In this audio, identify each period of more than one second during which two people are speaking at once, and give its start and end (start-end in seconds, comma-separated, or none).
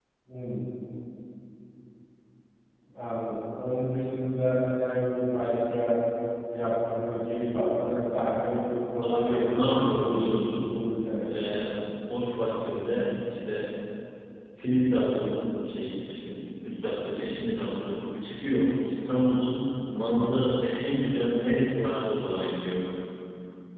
9.0-10.6